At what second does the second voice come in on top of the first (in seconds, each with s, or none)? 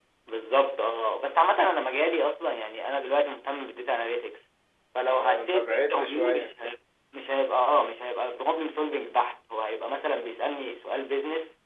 5.1 s